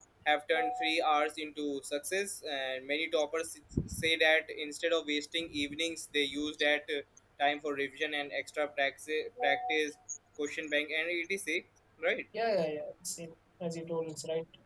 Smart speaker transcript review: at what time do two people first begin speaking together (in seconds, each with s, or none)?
none